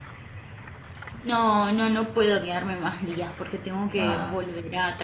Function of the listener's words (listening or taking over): listening